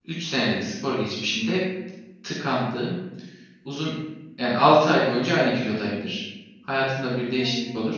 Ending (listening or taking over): listening